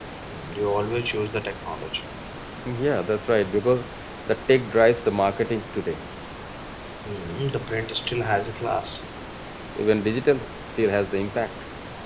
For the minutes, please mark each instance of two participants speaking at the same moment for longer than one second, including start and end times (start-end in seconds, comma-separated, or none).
none